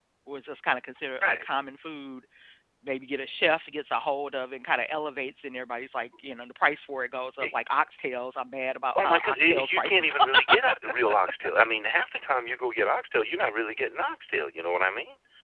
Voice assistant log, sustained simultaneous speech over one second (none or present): present